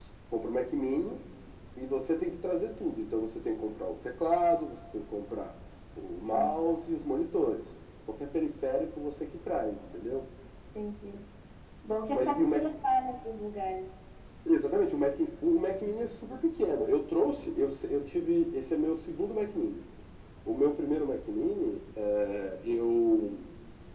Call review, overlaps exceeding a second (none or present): none